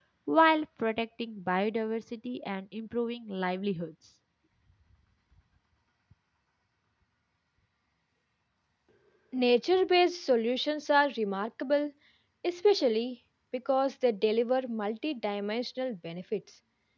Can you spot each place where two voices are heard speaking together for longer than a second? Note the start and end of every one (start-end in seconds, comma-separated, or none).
none